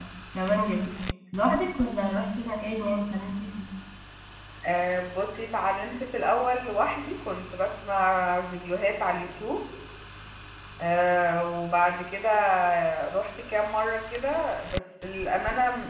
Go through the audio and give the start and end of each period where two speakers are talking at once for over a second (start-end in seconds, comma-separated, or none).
none